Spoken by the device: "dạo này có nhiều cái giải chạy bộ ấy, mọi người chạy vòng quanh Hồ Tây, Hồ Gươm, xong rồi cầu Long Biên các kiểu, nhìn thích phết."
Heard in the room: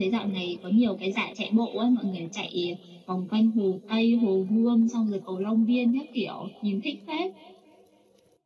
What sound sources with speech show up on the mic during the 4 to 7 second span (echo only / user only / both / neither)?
echo only